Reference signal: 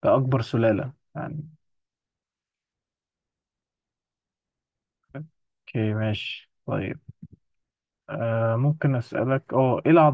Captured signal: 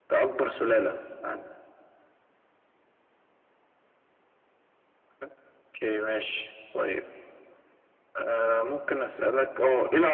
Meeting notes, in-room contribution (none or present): none